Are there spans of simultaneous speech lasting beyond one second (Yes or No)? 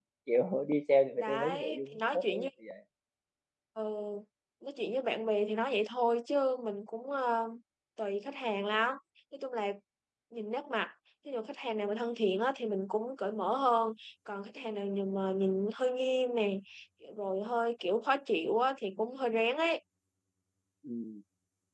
Yes